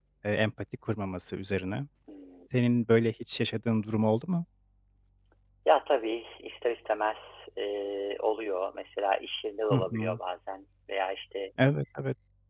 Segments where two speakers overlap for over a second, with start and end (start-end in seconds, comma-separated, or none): none